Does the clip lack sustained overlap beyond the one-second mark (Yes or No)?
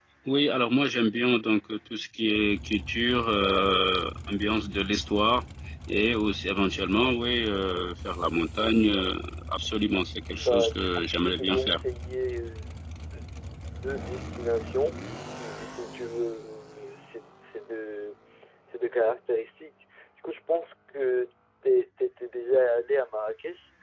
No